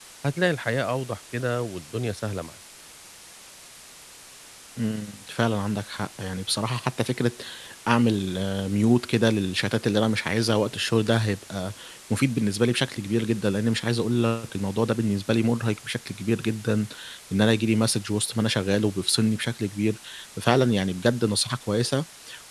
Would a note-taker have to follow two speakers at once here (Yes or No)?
No